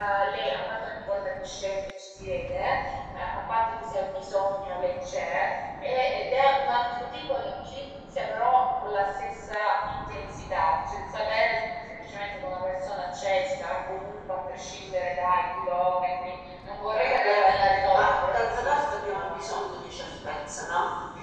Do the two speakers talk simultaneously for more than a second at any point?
Yes, from 16.9 s

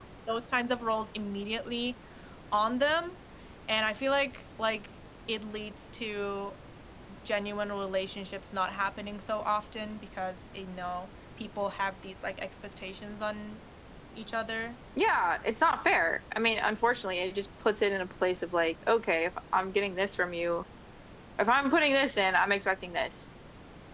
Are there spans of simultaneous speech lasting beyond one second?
No

